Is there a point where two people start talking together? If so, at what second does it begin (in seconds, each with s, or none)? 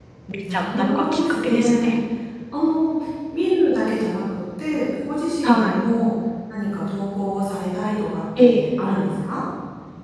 0.5 s